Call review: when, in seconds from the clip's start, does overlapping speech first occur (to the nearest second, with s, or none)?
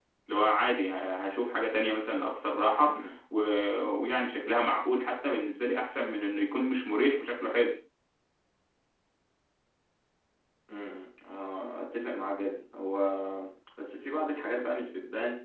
none